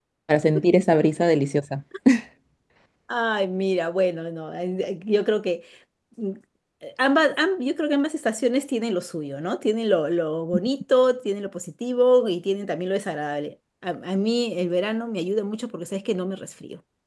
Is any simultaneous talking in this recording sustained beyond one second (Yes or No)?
No